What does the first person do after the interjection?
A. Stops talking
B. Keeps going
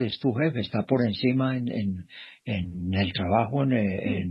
B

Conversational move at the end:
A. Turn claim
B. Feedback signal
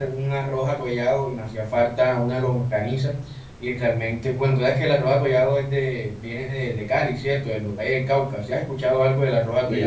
A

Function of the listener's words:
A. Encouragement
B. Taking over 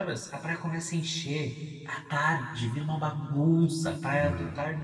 A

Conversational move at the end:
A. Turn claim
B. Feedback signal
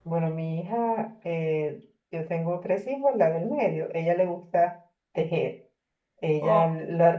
B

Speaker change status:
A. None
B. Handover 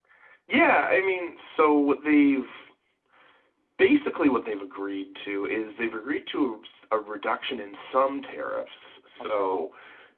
A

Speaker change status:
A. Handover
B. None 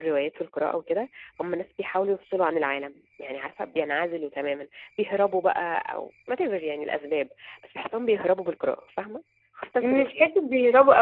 A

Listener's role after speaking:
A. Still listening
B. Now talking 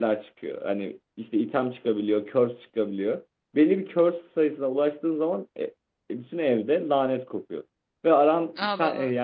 A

